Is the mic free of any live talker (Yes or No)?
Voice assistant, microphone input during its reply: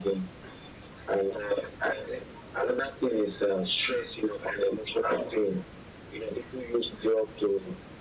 Yes